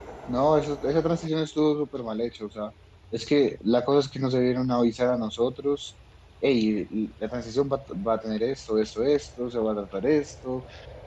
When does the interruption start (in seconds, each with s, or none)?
none